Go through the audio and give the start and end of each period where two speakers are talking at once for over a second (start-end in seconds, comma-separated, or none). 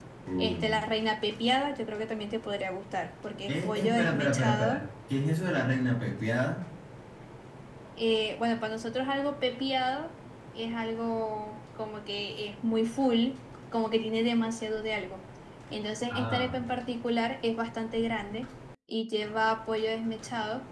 3.5-4.8